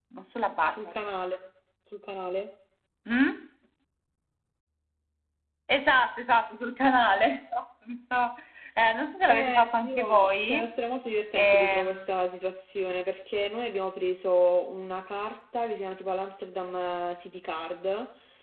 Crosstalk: present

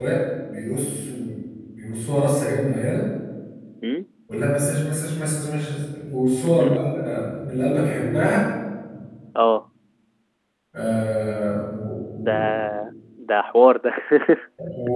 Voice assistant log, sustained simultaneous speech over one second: none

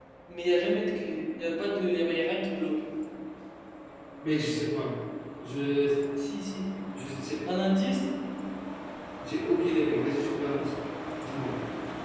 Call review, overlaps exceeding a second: none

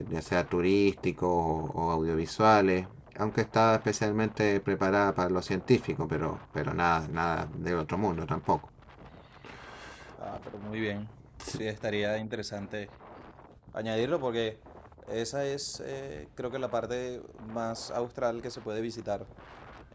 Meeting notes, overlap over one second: none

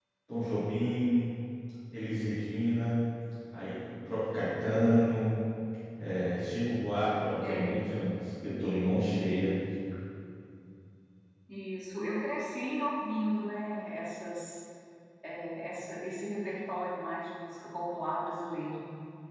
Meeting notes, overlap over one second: none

